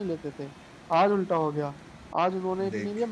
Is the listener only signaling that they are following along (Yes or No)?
Yes